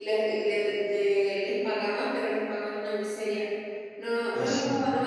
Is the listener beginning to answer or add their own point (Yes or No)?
No